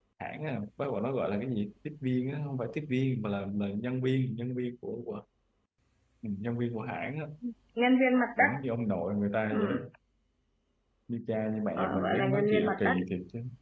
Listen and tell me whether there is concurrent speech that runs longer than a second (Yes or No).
Yes